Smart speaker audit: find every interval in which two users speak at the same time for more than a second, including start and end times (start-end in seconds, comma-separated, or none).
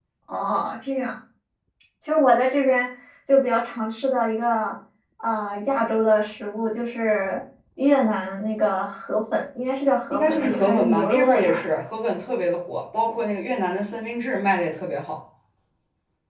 10.1-11.6